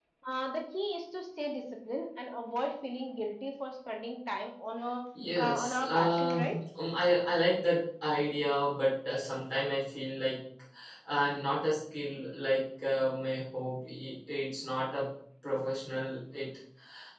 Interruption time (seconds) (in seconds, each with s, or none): 5.4 s